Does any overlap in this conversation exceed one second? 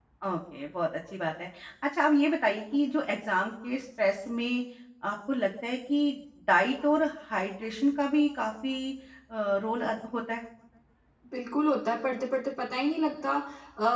No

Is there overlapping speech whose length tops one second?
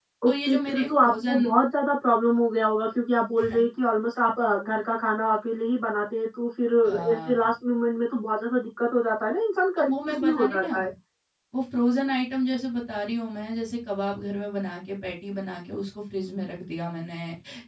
Yes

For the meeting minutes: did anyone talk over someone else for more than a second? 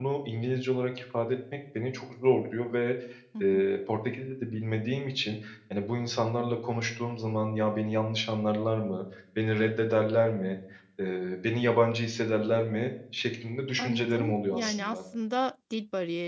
Yes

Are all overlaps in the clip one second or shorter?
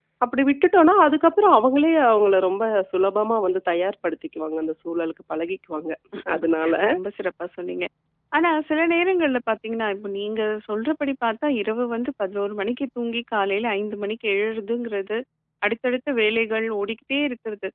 Yes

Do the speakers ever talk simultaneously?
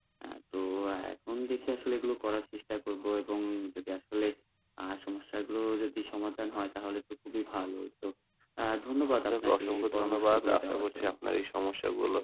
Yes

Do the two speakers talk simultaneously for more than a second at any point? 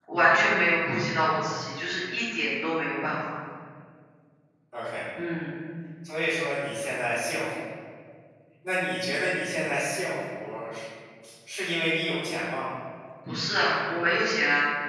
No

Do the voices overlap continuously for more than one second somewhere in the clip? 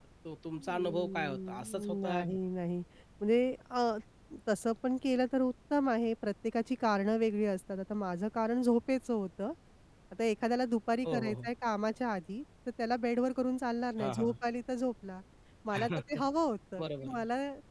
Yes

